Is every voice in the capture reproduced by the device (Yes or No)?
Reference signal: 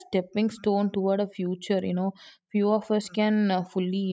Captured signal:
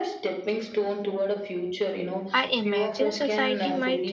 No